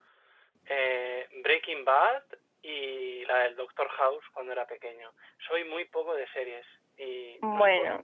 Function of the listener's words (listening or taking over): listening